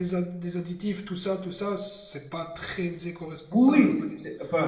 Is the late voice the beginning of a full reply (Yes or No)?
Yes